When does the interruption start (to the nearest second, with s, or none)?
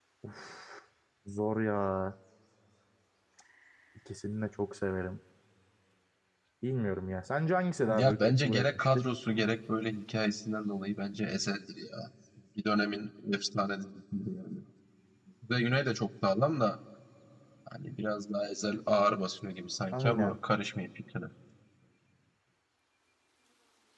8 s